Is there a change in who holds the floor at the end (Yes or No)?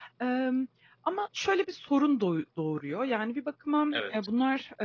No